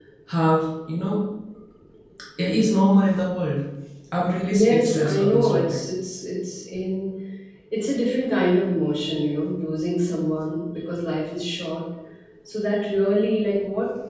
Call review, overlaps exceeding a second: present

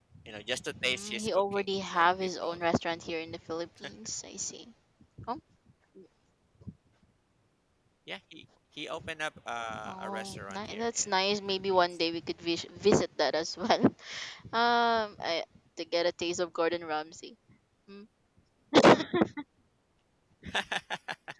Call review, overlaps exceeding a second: present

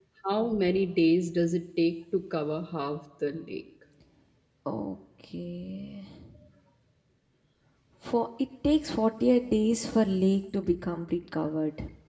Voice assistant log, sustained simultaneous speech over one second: none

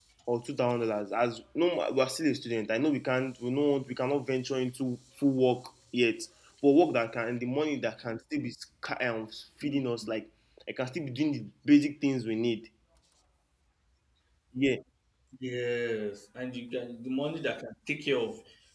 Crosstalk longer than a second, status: none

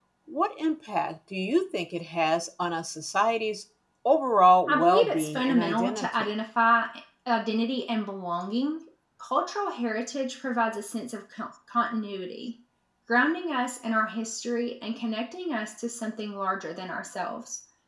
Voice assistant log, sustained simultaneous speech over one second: present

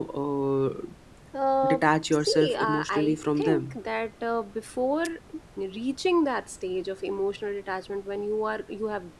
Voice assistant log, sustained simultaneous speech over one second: present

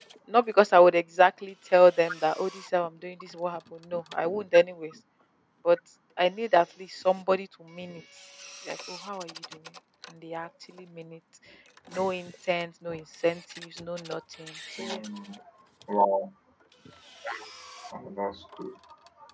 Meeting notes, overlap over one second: none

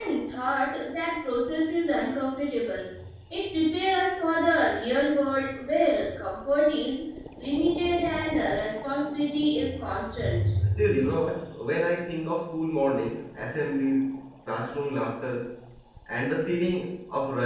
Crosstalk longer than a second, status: none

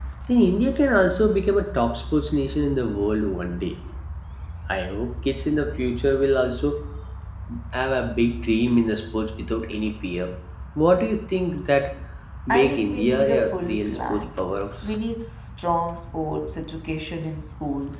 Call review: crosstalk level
present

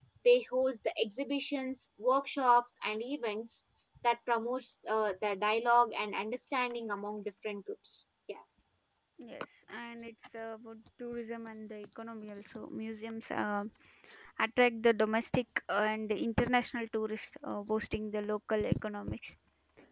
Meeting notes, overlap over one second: none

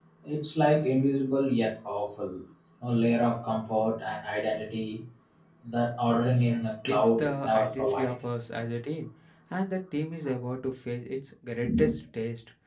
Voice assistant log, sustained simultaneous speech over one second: present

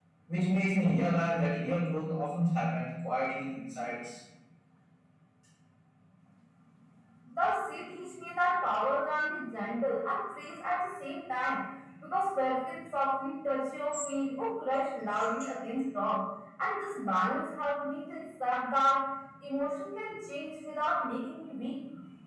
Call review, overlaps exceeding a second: none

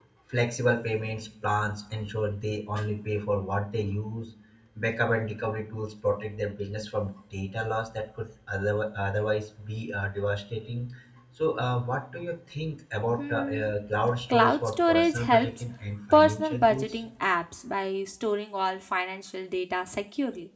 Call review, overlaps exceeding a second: present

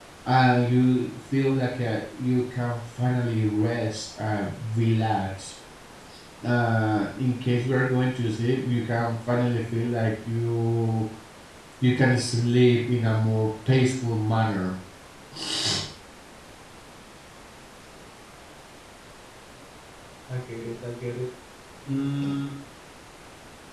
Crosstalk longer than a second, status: none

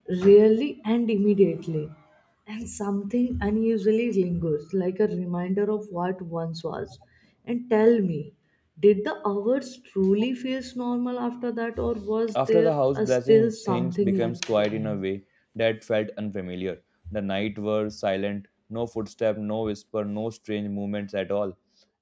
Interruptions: present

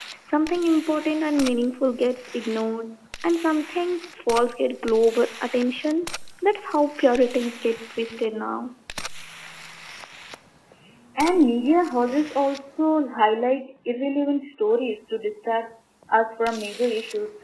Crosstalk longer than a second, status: none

